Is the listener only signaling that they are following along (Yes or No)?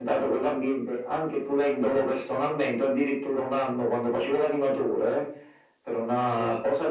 Yes